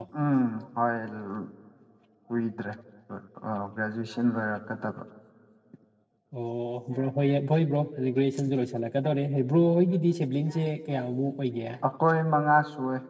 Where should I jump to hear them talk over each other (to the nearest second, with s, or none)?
none